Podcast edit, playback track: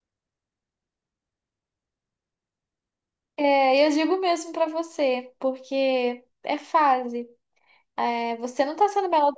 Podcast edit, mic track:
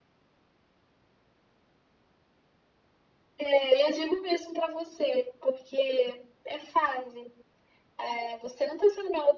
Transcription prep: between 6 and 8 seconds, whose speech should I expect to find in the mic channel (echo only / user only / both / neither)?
echo only